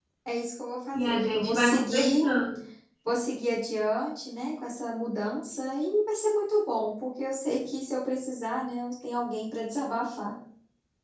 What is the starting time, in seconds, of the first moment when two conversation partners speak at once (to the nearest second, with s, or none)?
1 s